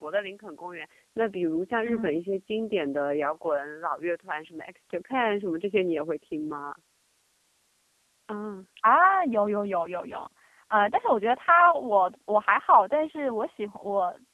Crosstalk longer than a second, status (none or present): none